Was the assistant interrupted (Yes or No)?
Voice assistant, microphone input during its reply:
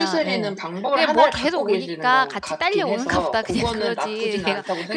Yes